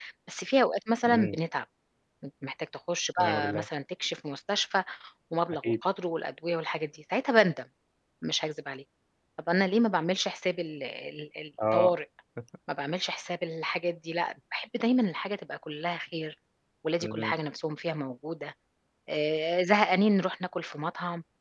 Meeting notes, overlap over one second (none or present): none